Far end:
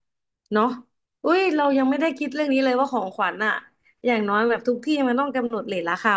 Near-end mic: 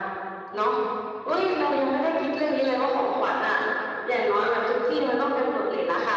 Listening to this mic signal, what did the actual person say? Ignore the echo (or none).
none